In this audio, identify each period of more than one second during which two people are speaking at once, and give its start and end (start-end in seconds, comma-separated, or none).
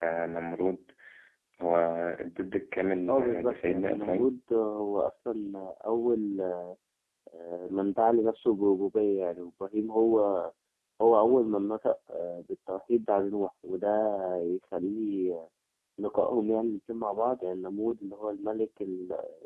3.1-4.3